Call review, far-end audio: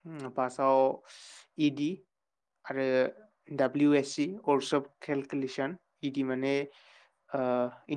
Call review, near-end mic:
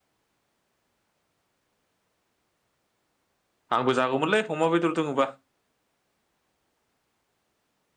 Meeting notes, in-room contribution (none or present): present